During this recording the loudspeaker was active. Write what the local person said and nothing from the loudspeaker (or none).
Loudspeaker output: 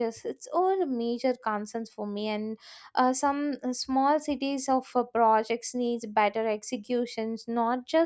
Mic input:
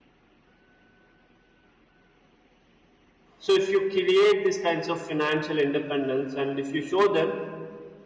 so if you create these kinds of financial independence and if you show them